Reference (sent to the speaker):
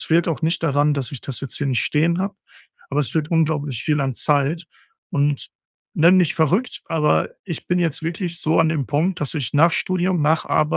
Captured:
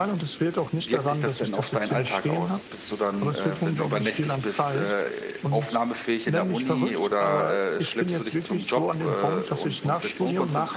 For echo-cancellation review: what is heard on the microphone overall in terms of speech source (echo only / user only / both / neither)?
both